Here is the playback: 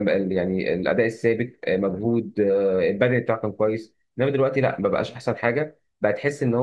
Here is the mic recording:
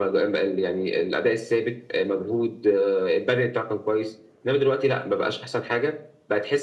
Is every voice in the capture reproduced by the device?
Yes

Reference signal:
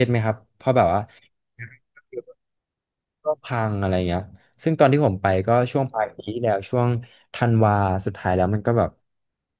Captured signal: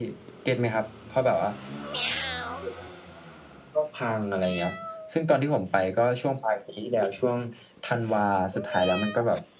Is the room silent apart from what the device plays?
Yes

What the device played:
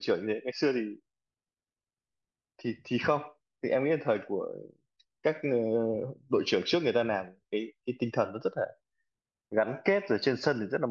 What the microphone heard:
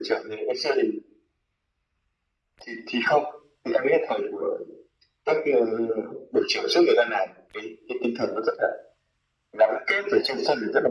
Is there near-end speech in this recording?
No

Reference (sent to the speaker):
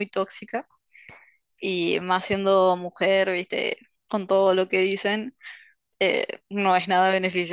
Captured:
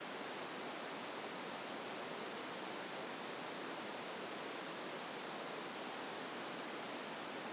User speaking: No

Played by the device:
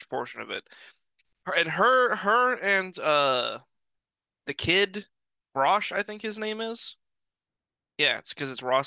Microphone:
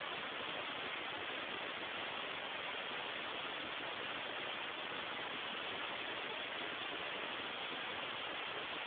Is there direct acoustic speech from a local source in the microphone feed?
No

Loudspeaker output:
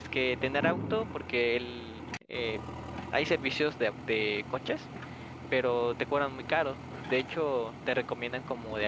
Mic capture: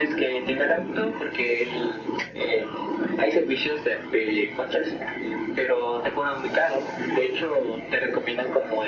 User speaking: No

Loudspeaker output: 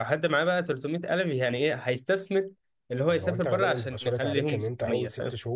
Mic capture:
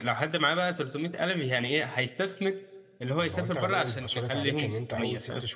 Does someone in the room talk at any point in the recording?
No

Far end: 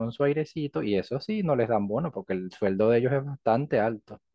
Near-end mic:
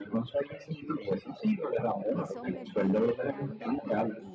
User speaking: Yes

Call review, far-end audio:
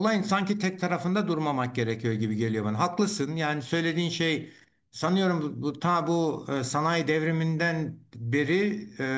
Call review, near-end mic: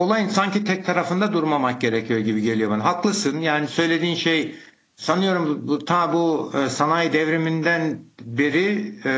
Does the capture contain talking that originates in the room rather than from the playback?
No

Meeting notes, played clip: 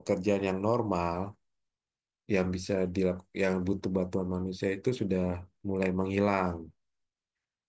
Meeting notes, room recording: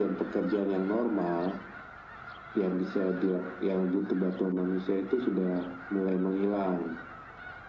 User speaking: No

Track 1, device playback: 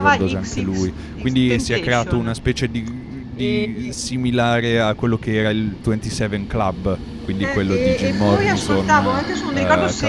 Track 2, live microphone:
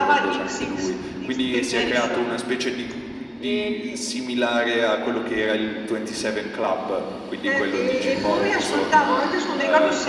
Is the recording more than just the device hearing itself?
Yes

